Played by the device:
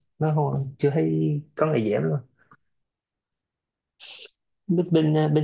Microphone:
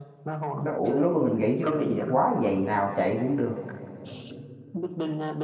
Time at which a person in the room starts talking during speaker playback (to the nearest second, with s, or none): 1 s